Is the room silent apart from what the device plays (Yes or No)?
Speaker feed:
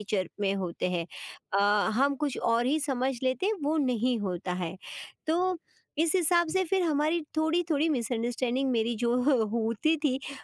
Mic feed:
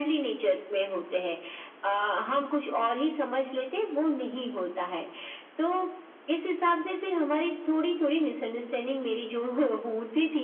Yes